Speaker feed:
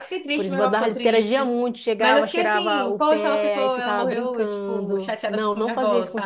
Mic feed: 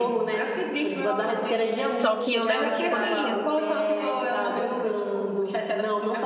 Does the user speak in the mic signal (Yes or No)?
Yes